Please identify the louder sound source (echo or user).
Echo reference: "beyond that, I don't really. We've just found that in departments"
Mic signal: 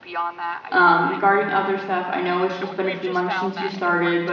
user